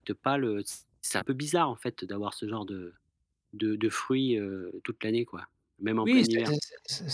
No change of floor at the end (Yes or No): No